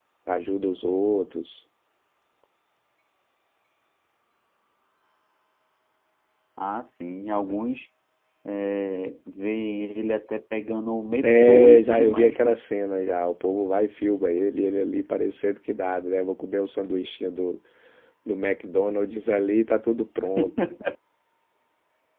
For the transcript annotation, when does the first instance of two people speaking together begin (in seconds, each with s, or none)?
11.2 s